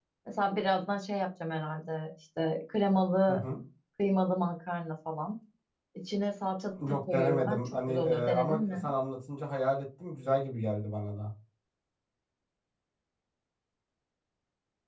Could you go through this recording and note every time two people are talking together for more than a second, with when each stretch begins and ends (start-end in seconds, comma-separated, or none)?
6.8-8.9